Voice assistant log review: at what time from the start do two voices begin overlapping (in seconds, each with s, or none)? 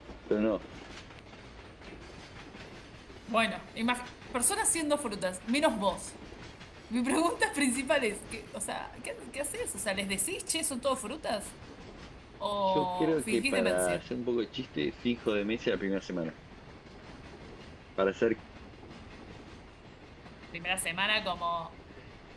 12.7 s